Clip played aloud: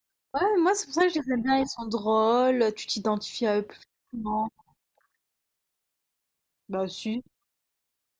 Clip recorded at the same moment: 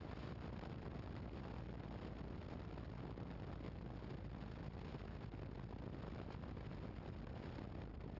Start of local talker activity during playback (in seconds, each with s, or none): none